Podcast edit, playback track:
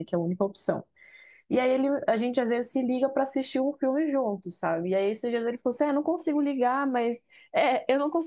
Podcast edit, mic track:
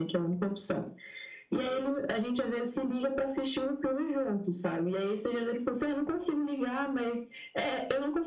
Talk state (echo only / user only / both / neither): echo only